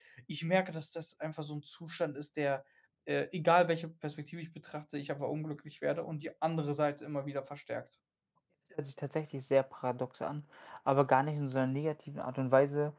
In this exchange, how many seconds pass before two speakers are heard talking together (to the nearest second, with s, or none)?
none